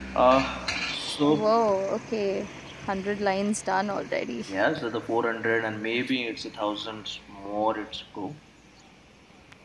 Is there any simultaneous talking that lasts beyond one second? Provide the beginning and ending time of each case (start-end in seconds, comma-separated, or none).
none